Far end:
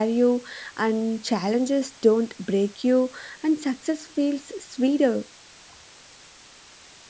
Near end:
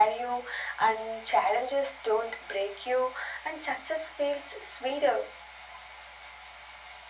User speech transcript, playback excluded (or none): none